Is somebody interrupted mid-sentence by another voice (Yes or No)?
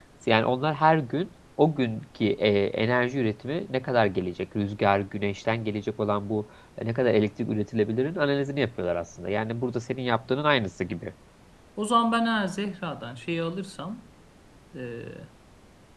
No